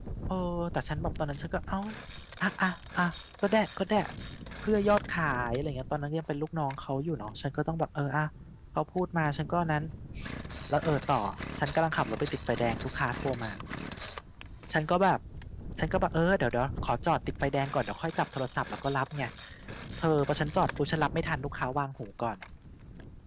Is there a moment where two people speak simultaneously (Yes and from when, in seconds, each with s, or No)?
No